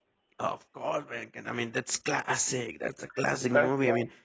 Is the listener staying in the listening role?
Yes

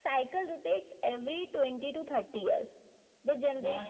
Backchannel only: Yes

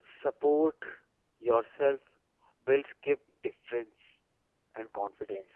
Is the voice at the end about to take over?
Yes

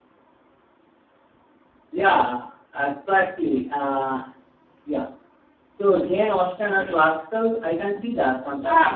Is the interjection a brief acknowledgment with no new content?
Yes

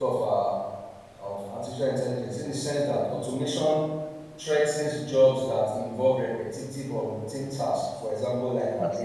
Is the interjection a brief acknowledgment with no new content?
Yes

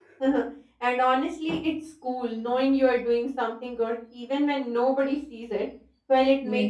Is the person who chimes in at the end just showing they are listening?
Yes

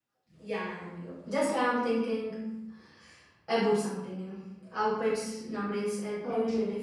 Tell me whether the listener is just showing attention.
No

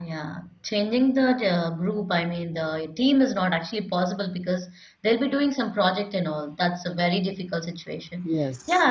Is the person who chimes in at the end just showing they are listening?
Yes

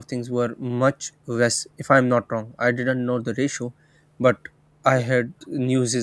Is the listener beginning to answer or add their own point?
No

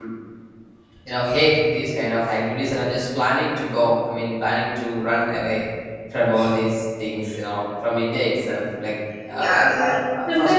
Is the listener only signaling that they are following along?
No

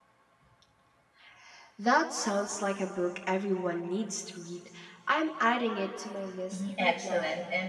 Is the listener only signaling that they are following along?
No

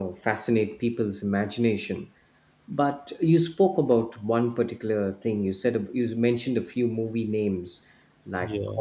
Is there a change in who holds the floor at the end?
No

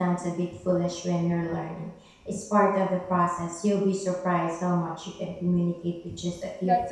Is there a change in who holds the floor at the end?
Yes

